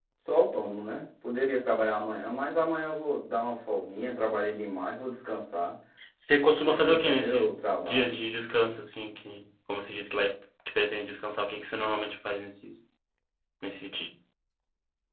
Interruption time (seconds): 7 s

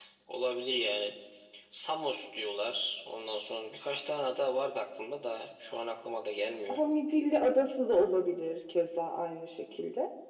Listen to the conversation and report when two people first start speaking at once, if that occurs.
none

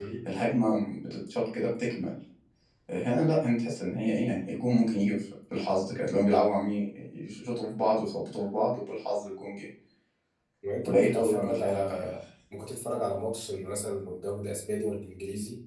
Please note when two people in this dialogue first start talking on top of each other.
11 s

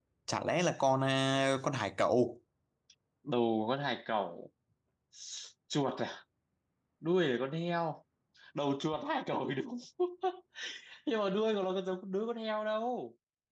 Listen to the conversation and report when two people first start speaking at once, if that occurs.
none

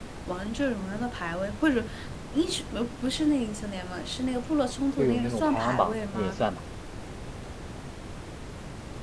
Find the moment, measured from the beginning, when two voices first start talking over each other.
5 s

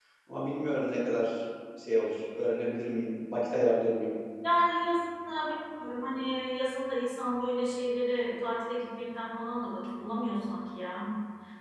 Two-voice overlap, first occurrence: none

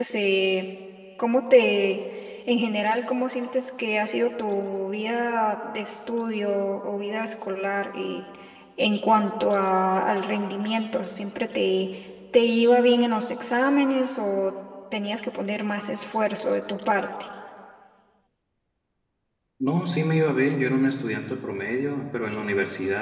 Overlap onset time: none

